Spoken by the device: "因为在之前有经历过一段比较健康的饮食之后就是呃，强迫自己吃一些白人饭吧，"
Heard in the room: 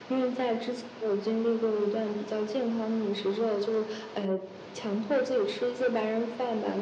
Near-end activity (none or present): none